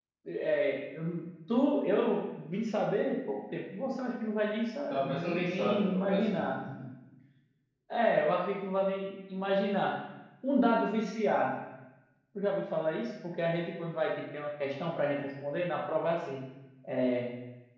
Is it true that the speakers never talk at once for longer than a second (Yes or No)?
No